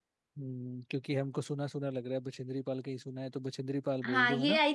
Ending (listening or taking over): taking over